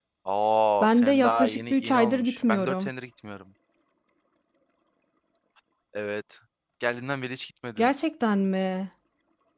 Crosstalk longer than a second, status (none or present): present